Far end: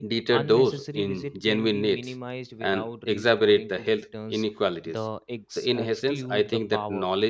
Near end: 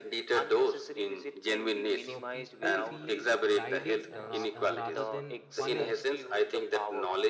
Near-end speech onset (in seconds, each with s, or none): 1.9 s